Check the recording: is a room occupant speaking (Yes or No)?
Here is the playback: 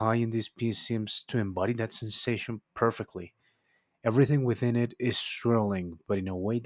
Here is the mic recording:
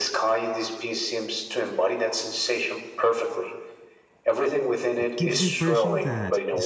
Yes